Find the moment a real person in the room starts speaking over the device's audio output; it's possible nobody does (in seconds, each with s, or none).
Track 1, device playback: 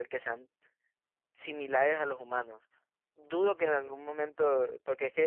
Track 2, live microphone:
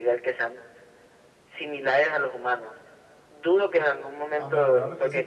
4.3 s